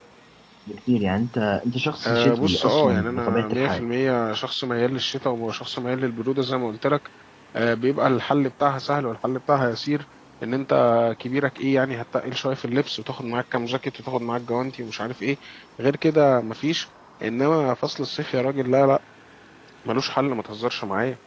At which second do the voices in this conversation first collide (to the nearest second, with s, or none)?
2 s